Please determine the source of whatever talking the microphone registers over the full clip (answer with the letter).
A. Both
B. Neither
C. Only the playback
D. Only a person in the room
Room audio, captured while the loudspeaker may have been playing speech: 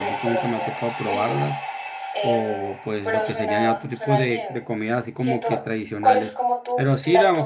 A